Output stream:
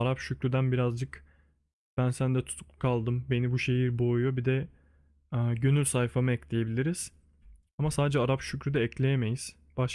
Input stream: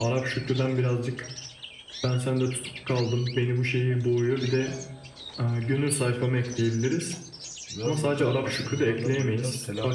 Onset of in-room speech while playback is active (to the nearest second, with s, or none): 8 s